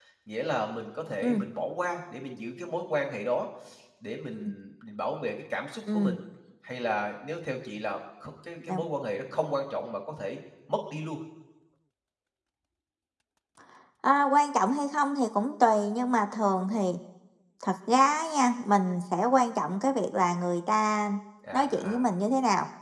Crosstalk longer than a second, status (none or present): none